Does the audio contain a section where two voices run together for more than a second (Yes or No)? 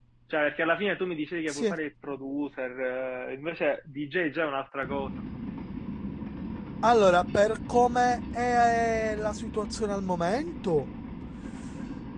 No